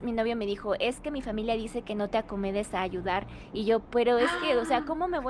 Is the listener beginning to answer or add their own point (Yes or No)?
No